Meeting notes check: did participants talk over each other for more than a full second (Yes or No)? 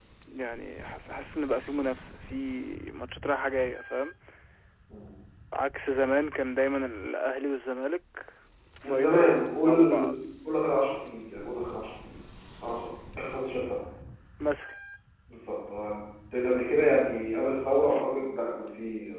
Yes